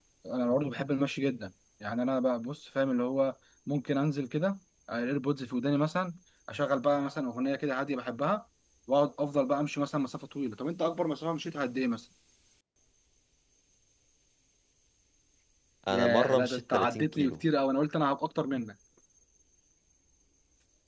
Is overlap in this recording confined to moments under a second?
No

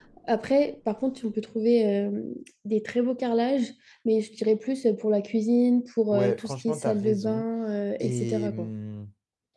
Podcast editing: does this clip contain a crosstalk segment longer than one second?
Yes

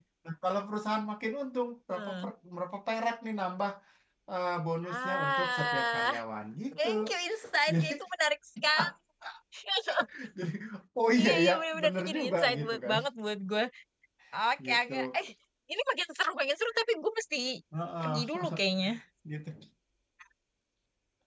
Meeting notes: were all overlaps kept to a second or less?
No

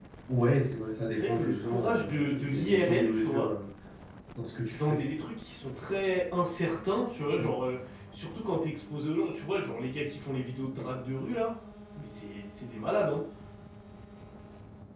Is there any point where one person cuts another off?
Yes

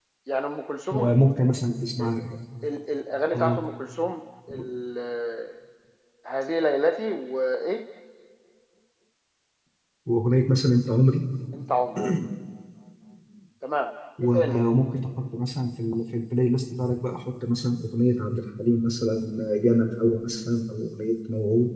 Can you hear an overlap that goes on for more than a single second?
No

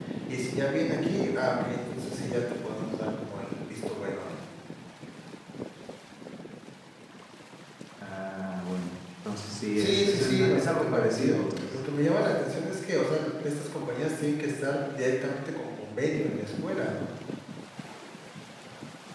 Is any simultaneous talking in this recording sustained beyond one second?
Yes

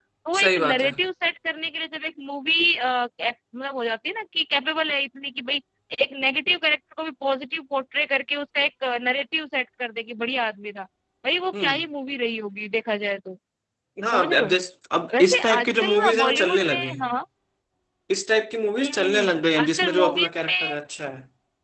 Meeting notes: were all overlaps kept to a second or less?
No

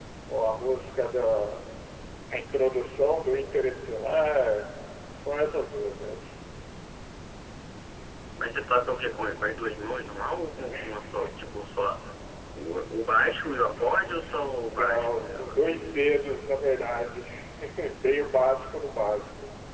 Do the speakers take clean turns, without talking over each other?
No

